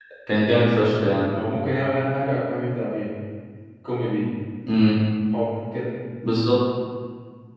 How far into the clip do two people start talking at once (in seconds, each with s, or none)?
none